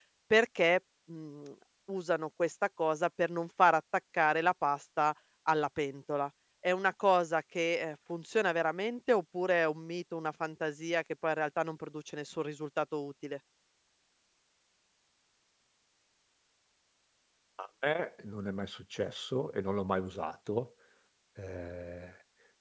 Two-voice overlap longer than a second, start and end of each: none

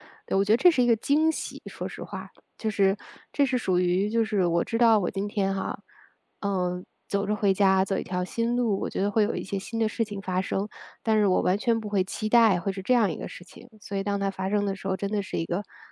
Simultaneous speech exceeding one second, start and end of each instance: none

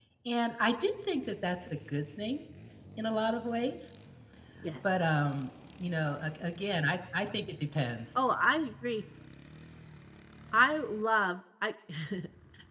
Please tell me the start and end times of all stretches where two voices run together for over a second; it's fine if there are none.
none

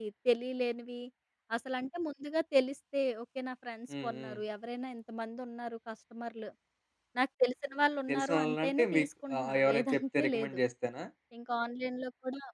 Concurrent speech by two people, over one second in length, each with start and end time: 8.1-10.6

